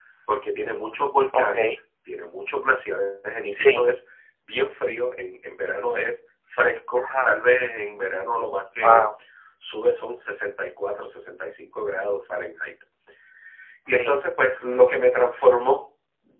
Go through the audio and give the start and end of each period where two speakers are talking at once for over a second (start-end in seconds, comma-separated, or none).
none